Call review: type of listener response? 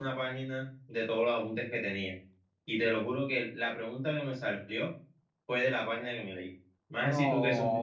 taking over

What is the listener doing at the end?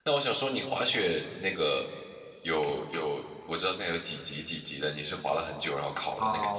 taking over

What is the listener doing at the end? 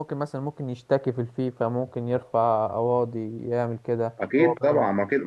taking over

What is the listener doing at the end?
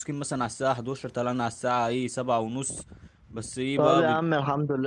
taking over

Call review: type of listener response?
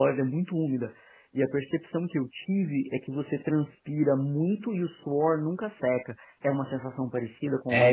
taking over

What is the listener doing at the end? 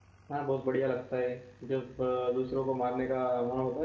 listening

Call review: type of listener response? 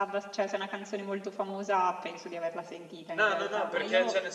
taking over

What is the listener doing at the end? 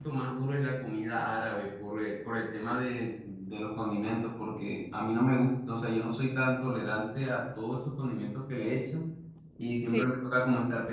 listening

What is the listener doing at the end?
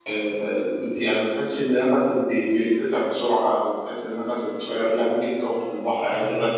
listening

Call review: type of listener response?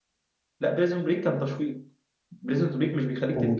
listening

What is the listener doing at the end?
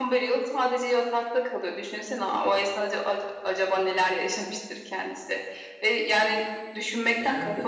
listening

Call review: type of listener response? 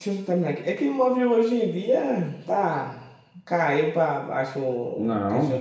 listening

